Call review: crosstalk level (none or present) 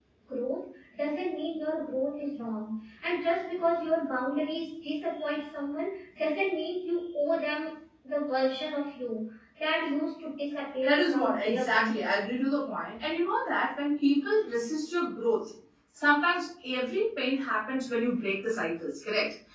present